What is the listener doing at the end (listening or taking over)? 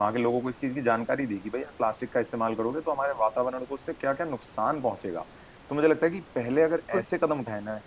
listening